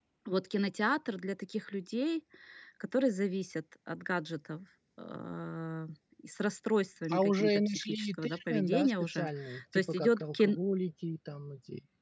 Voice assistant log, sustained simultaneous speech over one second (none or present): present